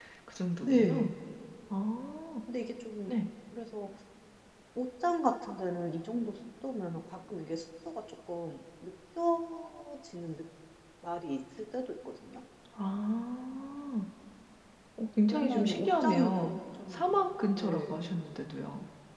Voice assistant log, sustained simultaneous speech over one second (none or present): present